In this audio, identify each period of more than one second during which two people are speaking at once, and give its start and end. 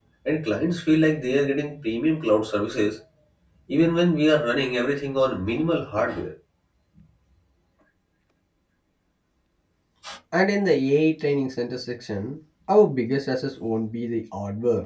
none

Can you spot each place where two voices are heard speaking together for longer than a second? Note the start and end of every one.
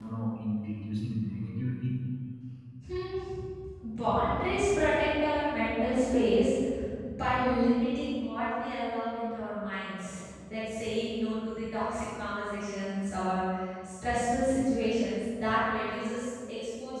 none

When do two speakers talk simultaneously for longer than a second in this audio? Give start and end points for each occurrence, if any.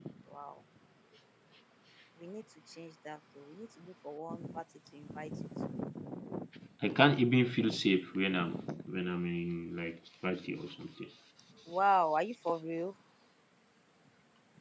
none

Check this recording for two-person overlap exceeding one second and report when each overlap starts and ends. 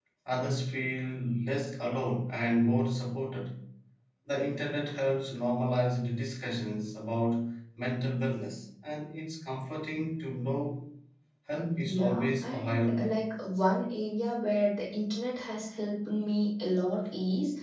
11.8-13.1

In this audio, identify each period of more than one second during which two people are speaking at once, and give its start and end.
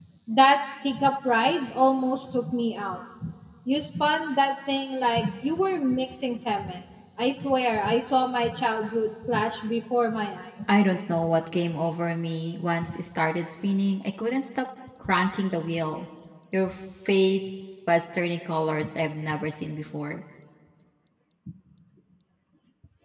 none

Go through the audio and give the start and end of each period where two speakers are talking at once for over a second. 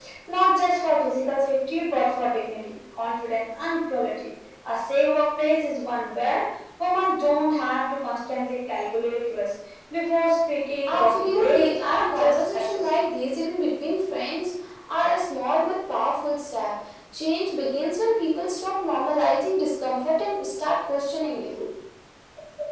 10.9-13.2

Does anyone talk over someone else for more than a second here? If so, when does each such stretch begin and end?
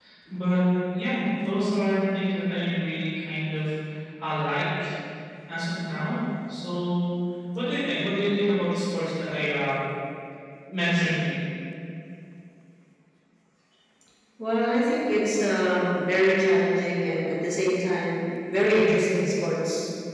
none

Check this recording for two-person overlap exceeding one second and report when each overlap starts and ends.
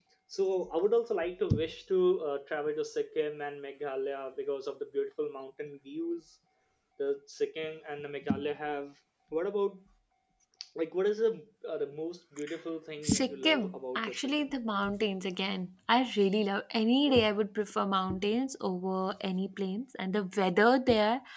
13.0-14.5

